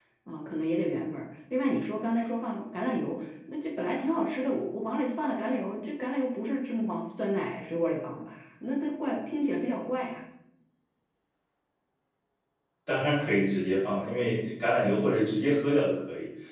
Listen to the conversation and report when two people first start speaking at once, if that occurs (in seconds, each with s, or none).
none